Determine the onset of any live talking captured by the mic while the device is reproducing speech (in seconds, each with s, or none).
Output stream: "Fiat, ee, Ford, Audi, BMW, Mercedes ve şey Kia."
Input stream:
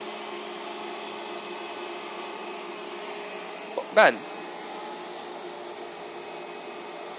3.8 s